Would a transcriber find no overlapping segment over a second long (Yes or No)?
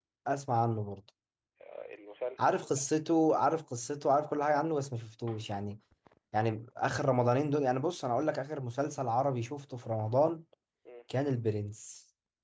Yes